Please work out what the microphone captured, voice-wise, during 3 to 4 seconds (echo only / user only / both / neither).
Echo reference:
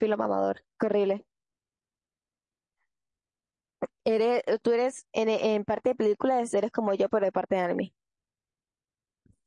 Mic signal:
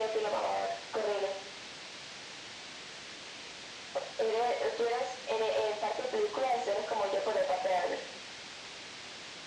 neither